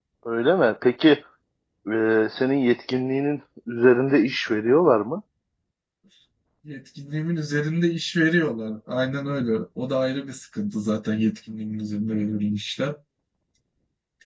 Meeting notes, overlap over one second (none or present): none